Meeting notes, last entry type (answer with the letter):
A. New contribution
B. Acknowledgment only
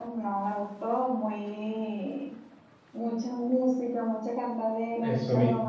B